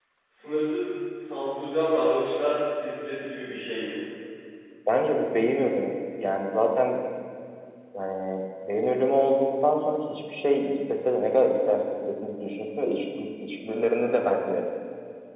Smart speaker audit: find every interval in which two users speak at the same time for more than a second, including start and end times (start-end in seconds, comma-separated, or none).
none